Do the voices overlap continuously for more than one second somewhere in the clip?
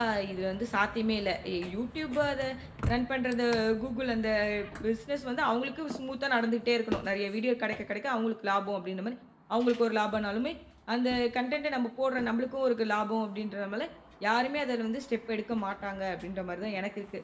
No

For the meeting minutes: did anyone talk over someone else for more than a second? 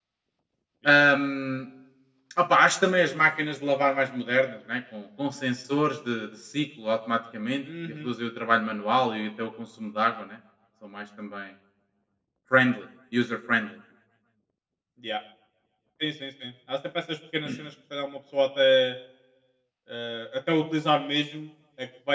No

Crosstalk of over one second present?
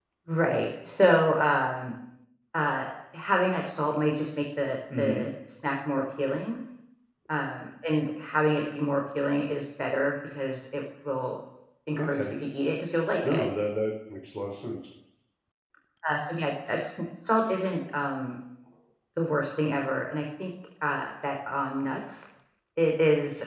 No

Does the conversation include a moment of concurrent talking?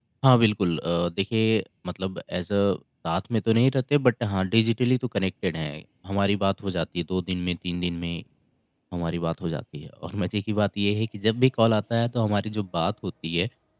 No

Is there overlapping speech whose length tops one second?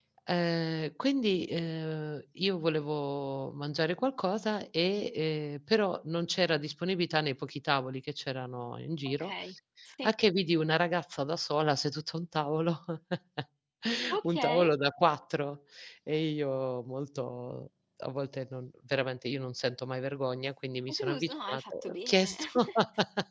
Yes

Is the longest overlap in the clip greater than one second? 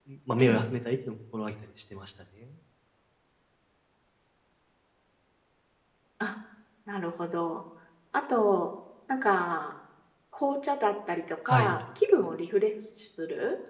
No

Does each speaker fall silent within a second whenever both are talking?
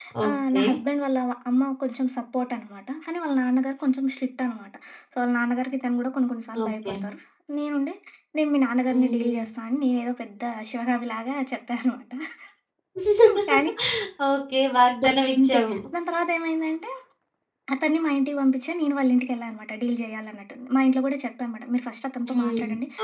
Yes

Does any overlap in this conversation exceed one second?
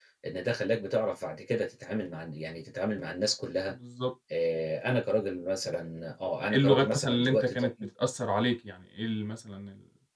Yes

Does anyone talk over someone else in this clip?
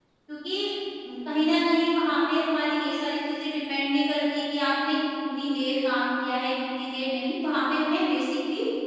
No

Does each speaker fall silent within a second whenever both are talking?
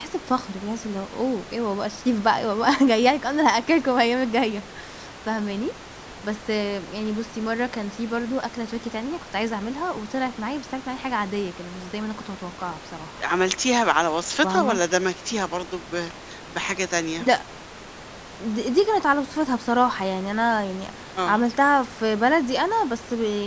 Yes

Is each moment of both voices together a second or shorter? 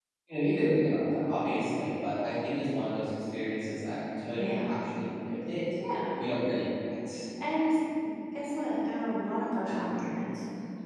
Yes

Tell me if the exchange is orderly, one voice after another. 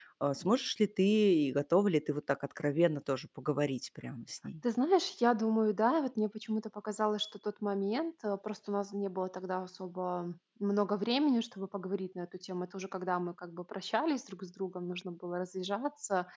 Yes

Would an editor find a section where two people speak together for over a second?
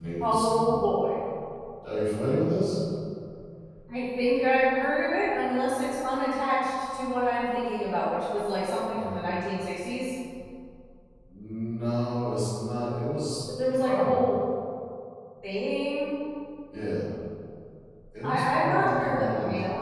Yes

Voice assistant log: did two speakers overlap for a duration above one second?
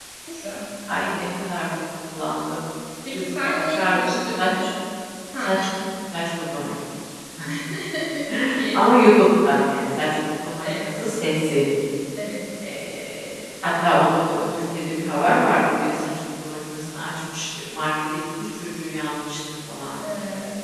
Yes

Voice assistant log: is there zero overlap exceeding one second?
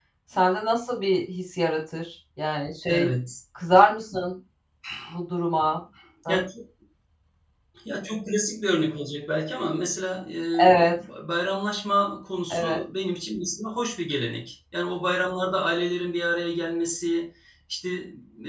Yes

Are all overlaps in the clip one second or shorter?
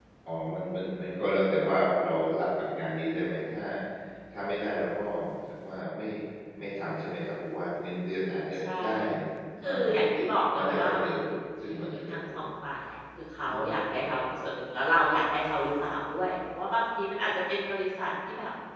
No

